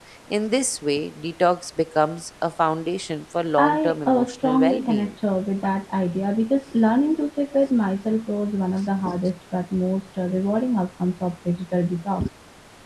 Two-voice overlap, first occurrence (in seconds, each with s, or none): 3.6 s